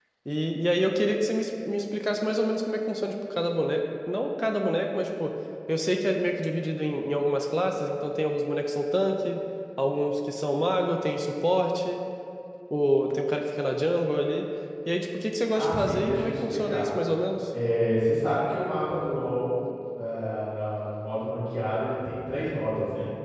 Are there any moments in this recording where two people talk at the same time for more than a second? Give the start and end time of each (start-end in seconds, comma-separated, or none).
15.6-16.9